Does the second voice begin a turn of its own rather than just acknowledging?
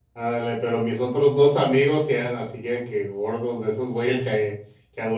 No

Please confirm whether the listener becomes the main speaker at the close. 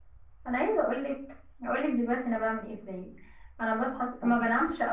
No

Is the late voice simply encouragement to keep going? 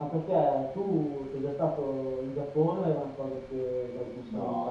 No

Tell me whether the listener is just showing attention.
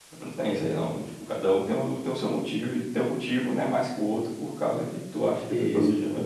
No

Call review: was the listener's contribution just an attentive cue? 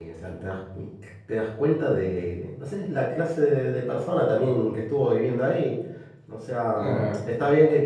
Yes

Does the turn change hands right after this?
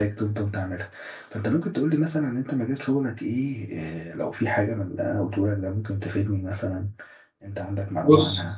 Yes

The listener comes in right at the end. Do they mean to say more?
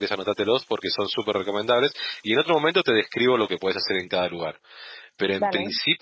No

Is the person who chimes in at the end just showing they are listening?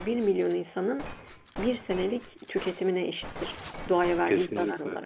No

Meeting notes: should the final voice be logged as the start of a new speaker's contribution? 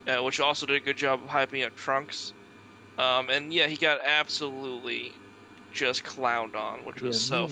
Yes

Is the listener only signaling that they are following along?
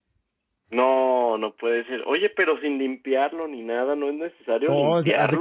No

